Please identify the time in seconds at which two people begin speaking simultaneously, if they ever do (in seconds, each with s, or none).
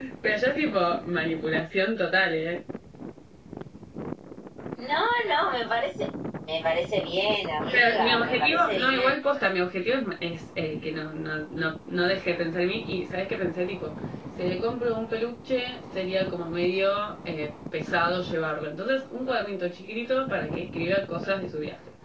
7.7 s